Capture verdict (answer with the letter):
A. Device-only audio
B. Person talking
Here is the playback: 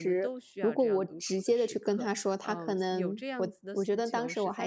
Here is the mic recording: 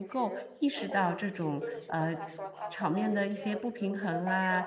B